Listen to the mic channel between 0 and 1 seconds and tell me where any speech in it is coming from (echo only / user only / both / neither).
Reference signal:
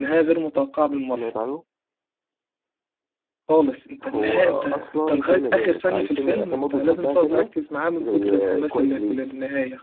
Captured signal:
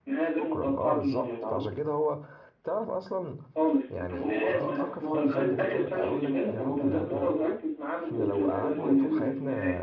both